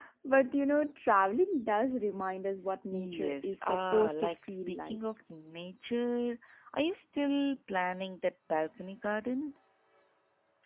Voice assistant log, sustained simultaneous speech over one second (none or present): present